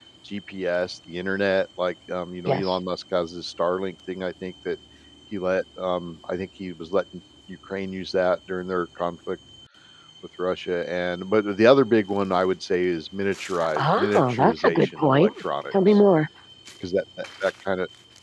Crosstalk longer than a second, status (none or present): present